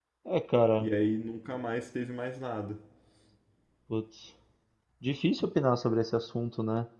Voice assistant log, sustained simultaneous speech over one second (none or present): none